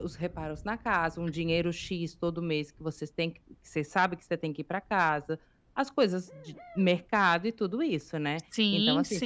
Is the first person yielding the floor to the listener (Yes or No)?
No